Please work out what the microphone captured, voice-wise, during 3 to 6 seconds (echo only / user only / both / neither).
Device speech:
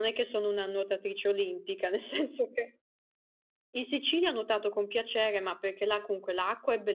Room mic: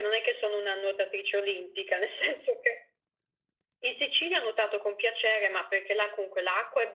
echo only